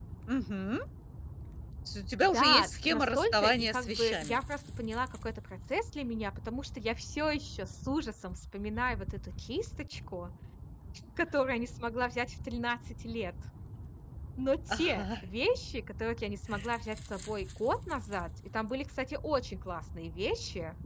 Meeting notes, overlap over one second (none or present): present